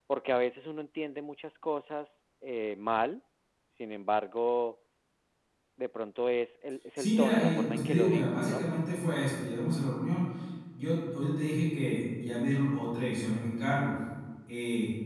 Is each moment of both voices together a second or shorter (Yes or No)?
No